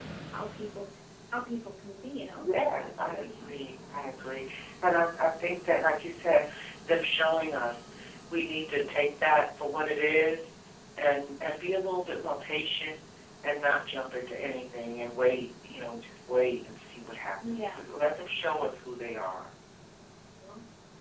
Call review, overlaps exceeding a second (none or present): present